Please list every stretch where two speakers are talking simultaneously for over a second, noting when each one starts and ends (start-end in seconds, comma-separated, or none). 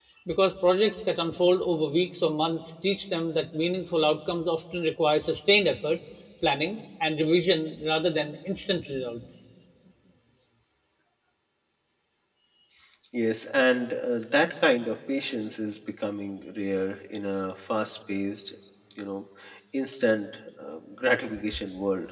none